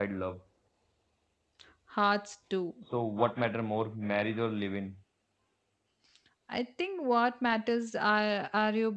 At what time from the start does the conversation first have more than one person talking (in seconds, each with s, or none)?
none